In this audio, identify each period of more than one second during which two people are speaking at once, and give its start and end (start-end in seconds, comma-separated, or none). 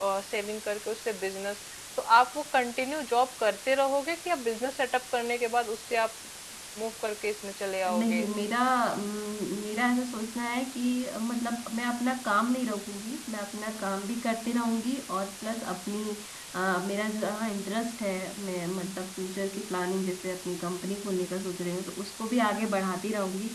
none